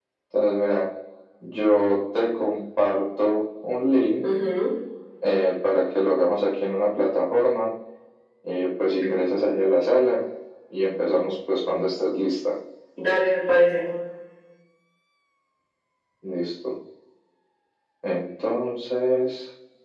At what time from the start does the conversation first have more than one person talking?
none

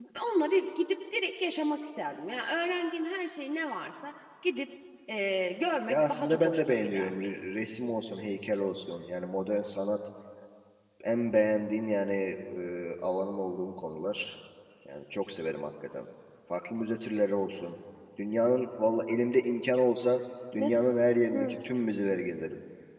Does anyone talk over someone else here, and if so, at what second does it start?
5.9 s

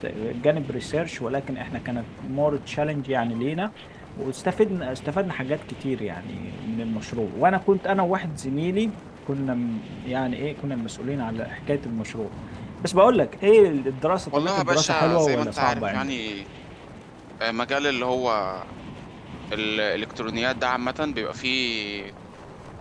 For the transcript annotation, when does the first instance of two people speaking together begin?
14.3 s

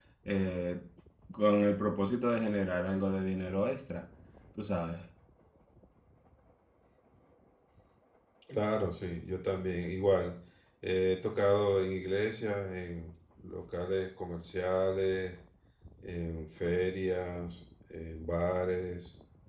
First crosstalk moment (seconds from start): none

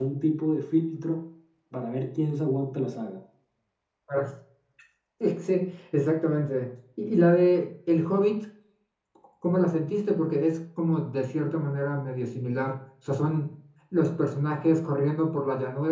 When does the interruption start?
none

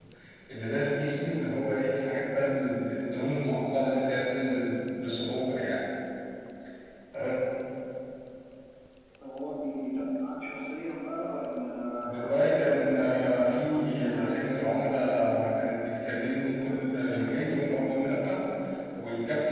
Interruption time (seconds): 12.0 s

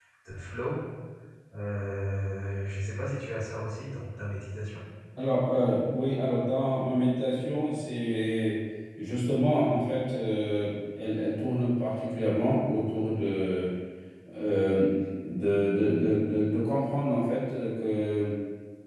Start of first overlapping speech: none

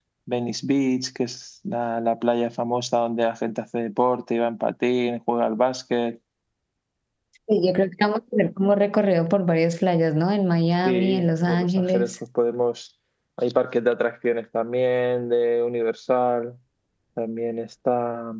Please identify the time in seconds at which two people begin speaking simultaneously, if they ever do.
10.8 s

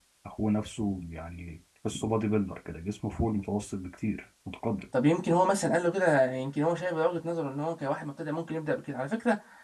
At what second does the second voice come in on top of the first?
none

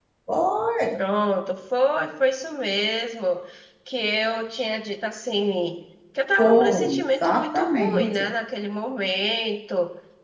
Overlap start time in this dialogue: 6.4 s

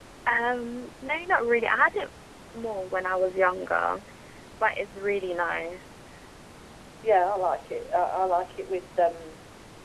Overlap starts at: none

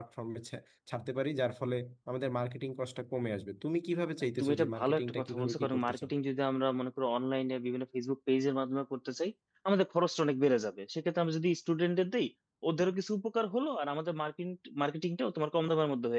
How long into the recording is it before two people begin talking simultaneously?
4.4 s

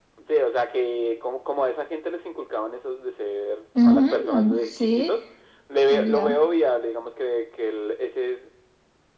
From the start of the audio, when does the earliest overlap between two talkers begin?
3.8 s

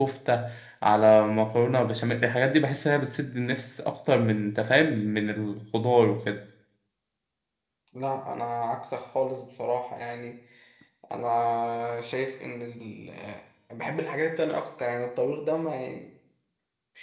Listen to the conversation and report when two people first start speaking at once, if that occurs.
none

